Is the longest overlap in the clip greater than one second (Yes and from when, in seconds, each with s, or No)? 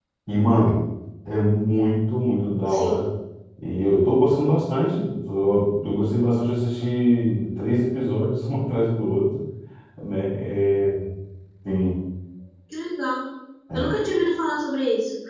No